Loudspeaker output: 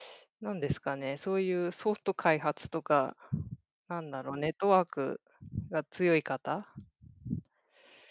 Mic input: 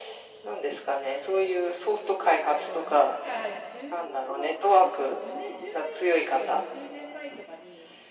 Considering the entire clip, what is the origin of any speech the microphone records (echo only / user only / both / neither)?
both